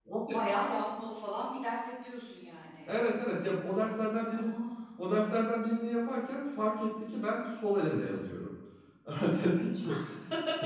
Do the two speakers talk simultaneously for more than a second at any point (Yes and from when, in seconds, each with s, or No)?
No